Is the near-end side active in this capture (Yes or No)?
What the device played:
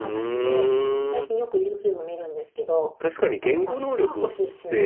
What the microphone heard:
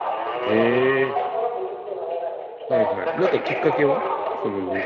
Yes